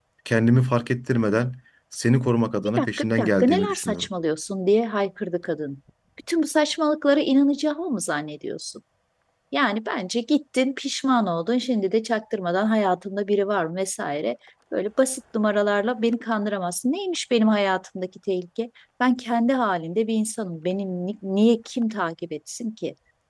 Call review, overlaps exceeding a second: present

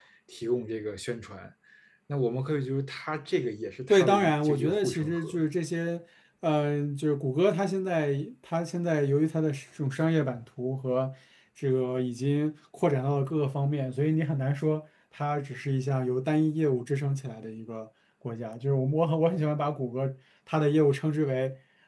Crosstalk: present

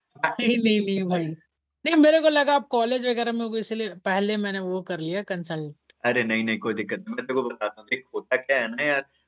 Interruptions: none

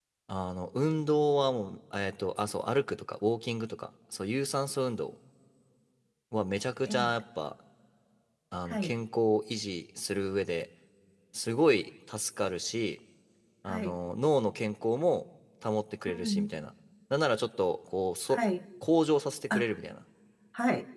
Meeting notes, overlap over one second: none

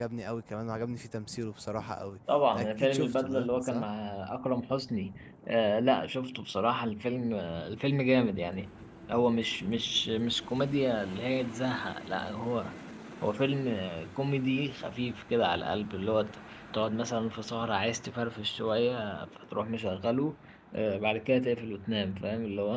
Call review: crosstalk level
present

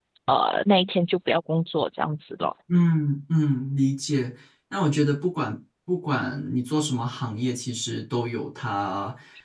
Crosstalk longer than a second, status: none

